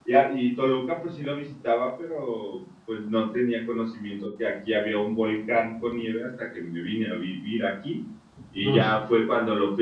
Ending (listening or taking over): listening